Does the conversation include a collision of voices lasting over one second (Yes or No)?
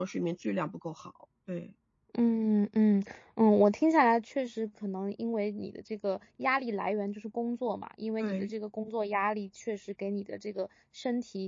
No